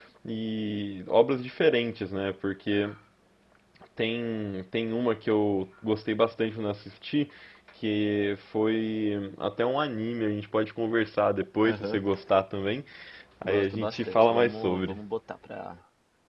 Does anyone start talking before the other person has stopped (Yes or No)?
Yes